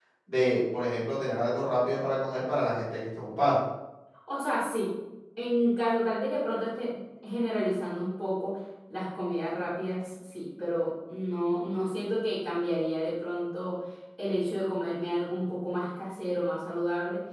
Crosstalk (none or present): none